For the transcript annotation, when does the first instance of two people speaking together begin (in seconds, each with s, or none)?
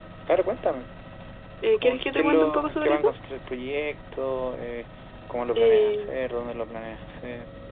1.7 s